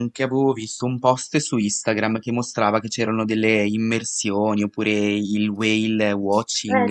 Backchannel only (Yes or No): No